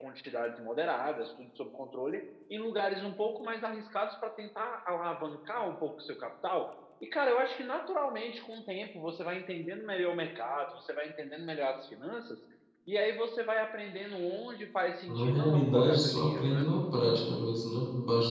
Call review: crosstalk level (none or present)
present